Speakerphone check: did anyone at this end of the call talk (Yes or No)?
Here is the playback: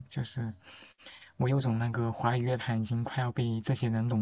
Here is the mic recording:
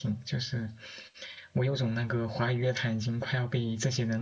No